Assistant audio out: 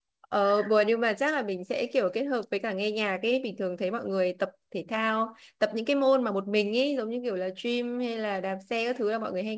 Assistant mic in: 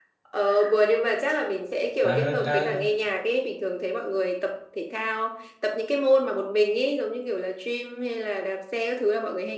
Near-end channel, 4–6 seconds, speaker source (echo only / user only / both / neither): echo only